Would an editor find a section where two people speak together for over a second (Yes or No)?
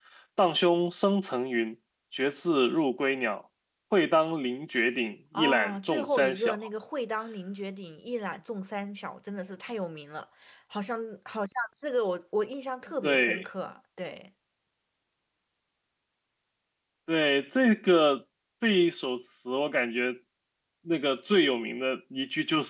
Yes